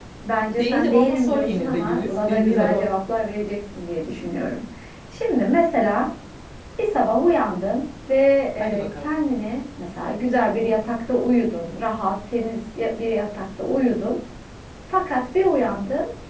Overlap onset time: 0.6 s

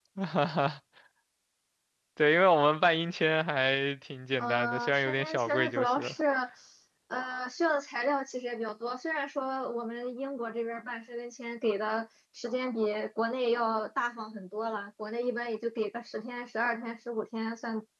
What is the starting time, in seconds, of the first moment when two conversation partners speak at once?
4.4 s

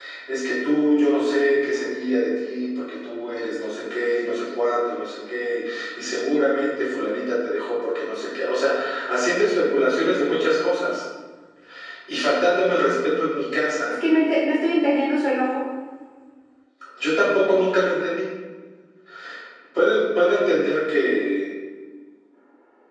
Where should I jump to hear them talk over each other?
none

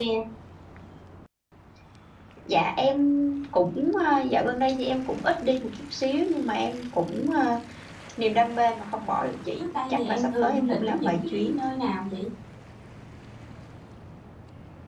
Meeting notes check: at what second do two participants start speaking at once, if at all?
9.6 s

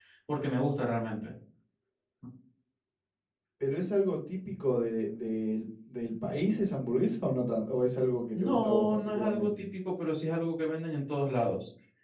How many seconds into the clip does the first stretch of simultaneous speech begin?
8.3 s

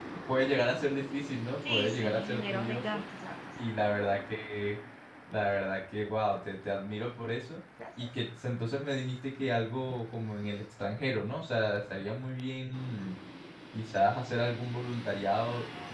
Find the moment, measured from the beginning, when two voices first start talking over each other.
1.7 s

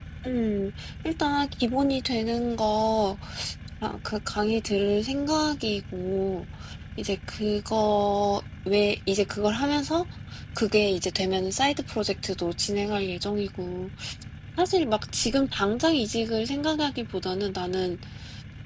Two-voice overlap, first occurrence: none

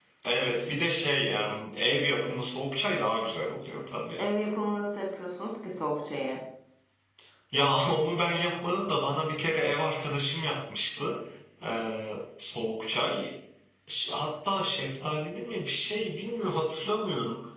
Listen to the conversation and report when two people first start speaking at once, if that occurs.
none

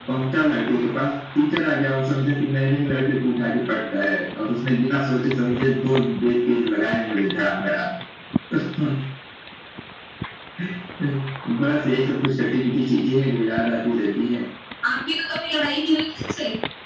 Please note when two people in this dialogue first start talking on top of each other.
none

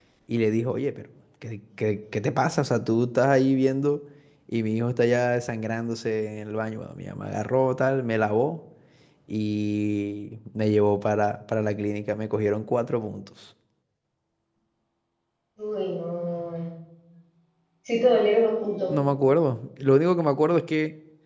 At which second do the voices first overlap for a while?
none

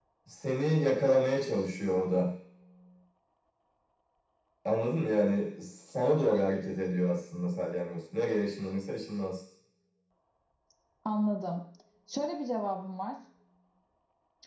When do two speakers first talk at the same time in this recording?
none

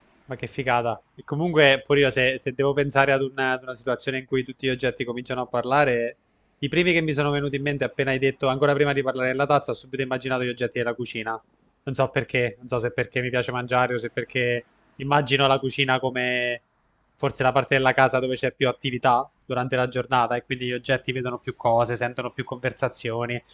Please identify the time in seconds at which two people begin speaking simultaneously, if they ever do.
none

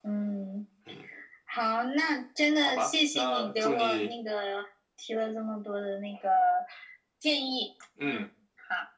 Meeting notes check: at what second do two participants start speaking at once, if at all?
2.6 s

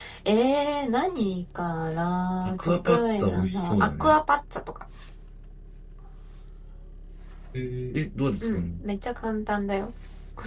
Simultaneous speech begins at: 2.4 s

